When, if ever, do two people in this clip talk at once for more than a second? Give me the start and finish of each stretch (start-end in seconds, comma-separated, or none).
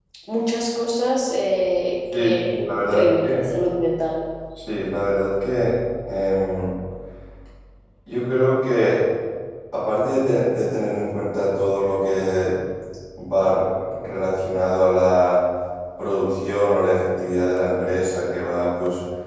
2.1-3.4